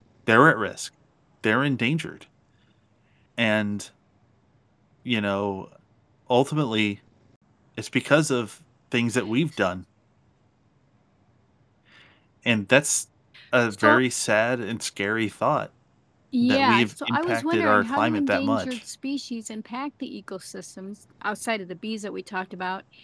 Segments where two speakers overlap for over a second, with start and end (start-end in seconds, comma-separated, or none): 16.4-18.8